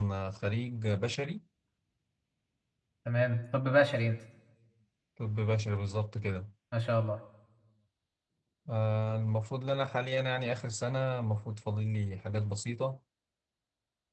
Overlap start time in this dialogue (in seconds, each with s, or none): none